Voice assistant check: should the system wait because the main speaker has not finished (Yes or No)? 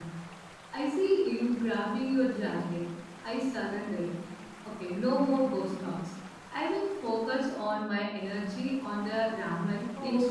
No